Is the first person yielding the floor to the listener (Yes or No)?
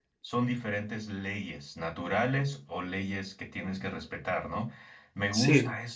No